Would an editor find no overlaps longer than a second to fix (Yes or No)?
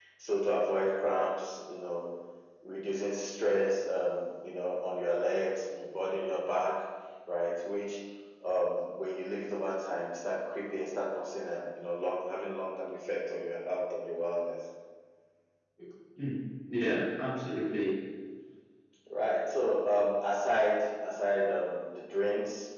Yes